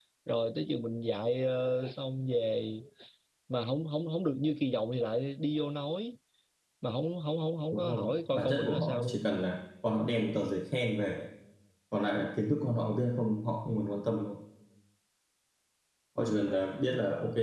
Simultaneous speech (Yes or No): Yes